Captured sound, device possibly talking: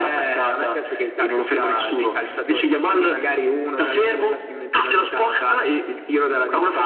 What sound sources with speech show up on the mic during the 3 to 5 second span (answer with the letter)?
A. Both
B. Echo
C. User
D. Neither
B